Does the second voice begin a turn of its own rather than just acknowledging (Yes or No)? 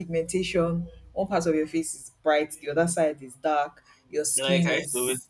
Yes